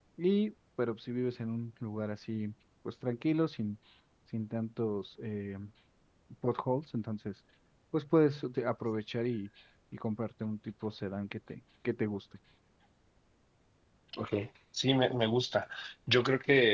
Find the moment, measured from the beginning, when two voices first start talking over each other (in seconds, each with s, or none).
none